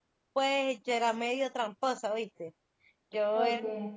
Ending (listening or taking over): listening